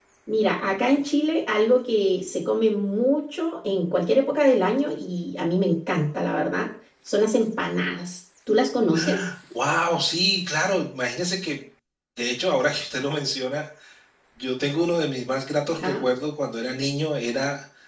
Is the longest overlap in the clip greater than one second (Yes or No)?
No